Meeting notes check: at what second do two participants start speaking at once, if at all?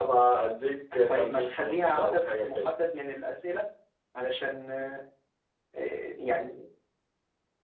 1 s

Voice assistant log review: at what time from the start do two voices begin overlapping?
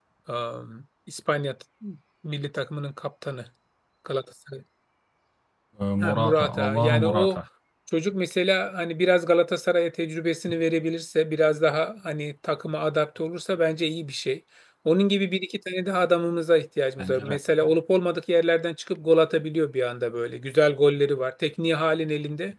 6 s

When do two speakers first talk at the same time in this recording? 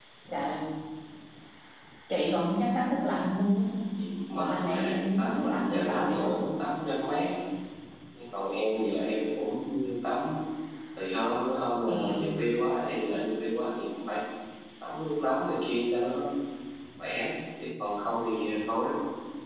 4 s

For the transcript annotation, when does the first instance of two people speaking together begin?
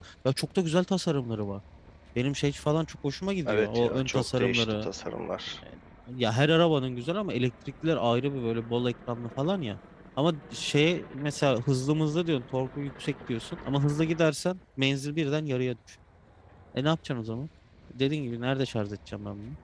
3 s

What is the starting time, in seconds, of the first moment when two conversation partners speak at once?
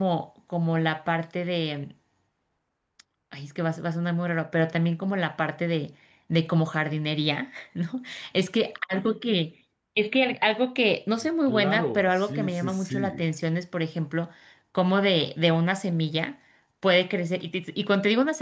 11 s

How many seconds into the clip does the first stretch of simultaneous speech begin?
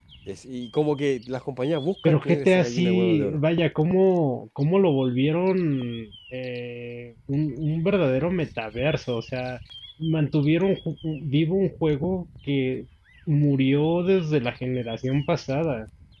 2 s

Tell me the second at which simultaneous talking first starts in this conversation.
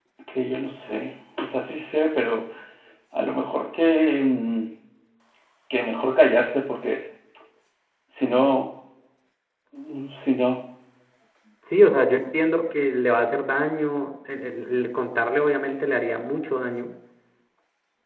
none

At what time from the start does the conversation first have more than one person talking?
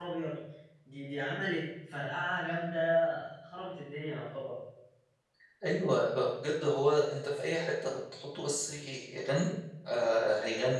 none

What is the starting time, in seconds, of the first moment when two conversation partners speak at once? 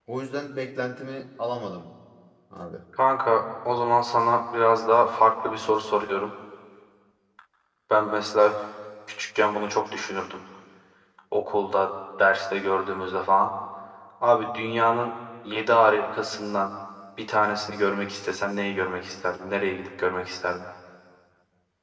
none

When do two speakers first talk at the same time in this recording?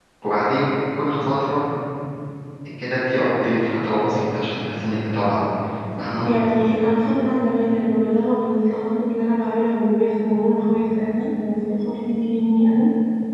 none

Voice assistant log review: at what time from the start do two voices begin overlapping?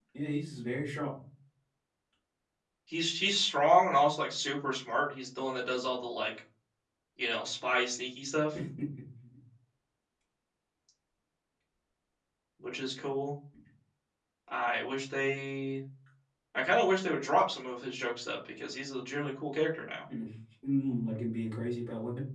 none

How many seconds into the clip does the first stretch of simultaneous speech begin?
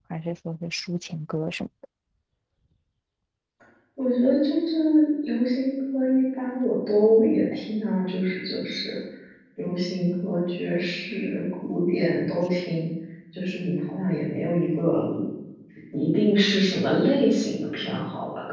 none

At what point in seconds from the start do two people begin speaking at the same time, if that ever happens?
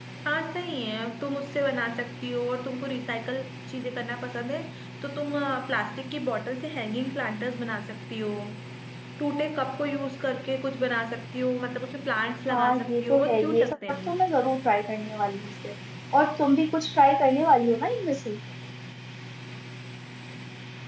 13 s

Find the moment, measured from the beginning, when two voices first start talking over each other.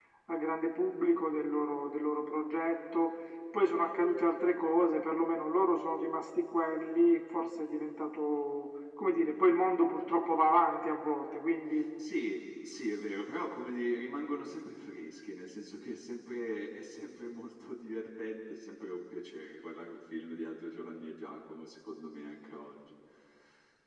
none

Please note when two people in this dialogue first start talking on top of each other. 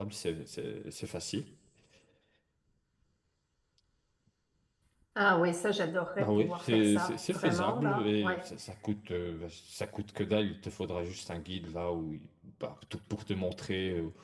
6 s

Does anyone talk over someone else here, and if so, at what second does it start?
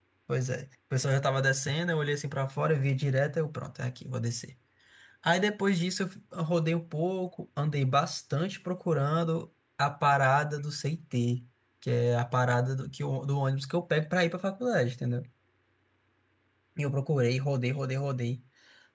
none

